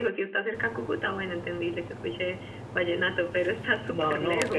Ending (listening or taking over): taking over